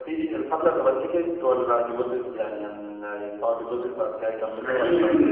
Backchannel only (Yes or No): No